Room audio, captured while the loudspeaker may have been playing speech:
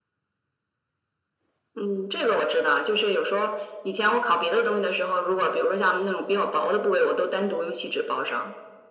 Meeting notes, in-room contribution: none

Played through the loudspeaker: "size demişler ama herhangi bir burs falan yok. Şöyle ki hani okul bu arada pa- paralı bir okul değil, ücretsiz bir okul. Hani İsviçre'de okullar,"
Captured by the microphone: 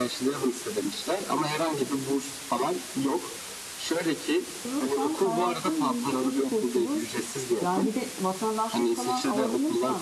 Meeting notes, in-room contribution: present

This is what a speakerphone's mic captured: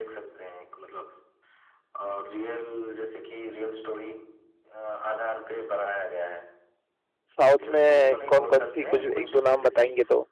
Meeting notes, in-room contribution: present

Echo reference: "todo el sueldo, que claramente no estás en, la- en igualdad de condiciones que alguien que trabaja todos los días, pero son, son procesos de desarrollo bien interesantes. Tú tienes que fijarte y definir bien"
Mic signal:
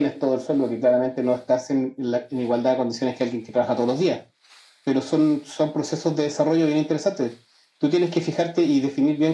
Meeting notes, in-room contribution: none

